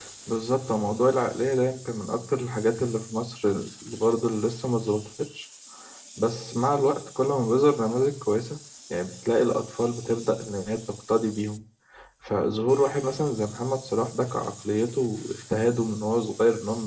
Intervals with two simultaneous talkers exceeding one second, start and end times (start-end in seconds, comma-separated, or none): none